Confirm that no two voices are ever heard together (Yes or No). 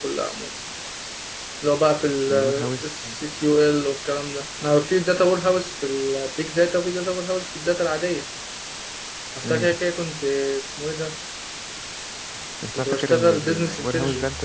No